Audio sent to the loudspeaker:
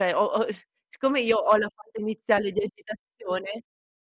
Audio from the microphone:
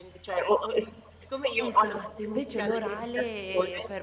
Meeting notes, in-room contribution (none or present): present